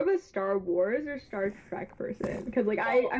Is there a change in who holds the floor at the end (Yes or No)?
No